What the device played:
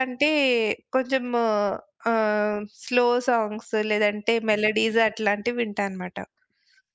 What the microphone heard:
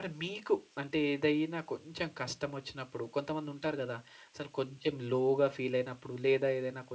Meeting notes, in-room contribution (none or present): present